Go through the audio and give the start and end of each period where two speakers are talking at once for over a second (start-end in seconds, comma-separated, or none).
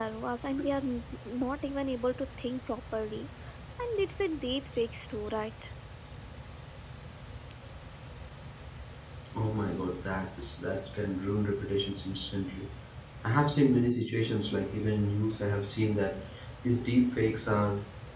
none